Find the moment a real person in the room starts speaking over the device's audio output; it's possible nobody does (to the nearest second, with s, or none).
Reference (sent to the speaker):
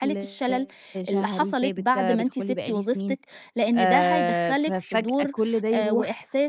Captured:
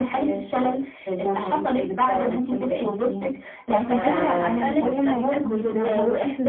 4 s